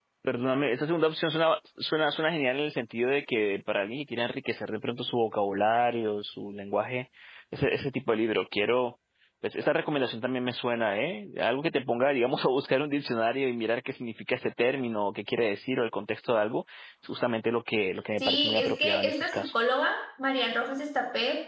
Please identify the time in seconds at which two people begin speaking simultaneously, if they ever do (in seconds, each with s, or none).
18.2 s